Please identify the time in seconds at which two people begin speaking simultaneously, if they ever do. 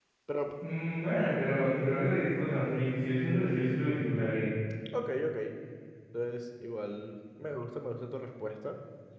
none

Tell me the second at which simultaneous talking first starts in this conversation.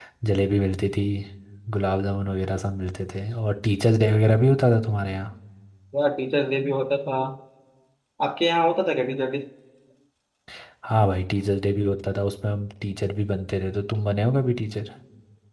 none

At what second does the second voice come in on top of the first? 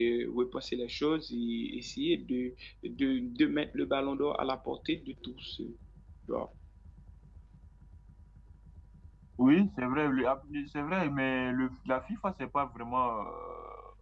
none

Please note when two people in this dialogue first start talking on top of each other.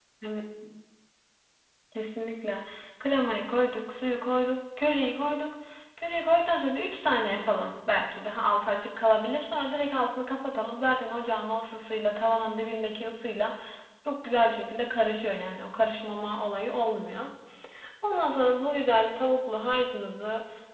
none

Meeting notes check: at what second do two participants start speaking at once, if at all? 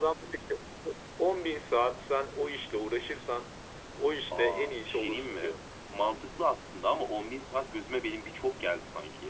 4.3 s

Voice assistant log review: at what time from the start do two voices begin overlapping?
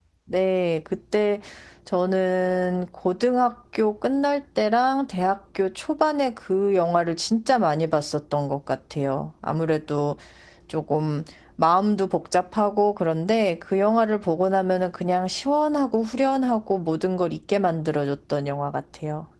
none

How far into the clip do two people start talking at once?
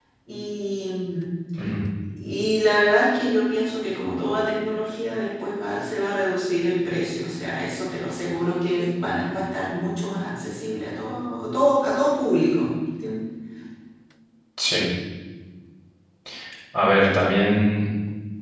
none

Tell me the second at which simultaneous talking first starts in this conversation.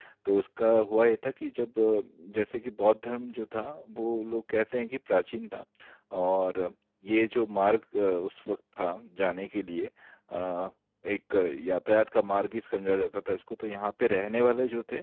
none

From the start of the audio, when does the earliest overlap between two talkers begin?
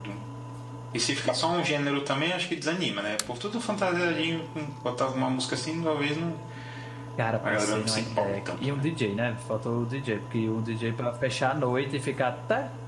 7.5 s

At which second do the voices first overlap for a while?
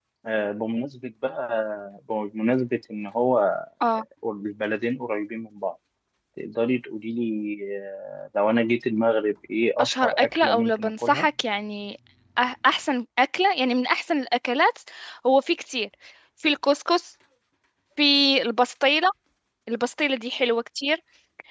9.8 s

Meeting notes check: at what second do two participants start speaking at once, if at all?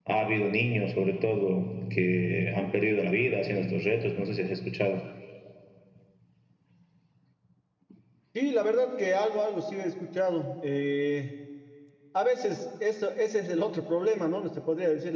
none

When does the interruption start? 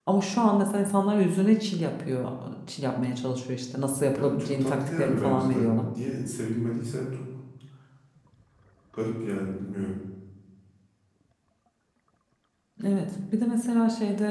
4.2 s

